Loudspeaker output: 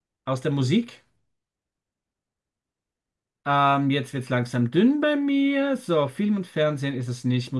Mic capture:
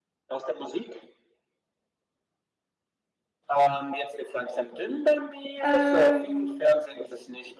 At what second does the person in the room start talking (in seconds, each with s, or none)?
5.6 s